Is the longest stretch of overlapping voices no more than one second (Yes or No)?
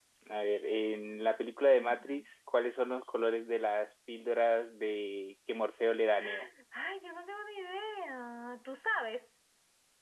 Yes